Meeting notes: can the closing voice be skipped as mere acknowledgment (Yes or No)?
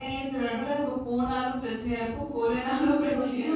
No